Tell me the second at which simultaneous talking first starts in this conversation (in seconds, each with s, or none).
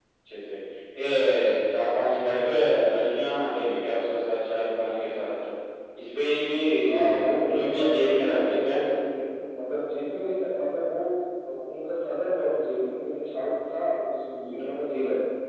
6.8 s